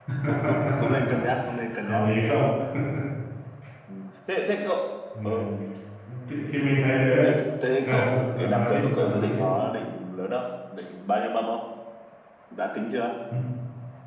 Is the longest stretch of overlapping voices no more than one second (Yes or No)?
No